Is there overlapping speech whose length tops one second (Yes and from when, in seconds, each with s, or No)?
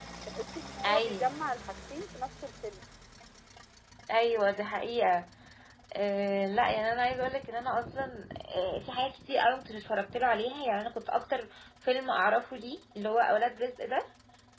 No